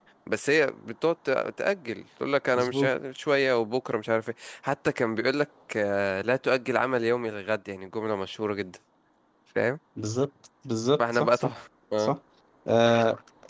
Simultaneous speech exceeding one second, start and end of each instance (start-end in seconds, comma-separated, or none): none